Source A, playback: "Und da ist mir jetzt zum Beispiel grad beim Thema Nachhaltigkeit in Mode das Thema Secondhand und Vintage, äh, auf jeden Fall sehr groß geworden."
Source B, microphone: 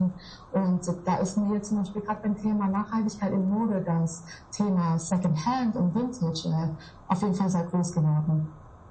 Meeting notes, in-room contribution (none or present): none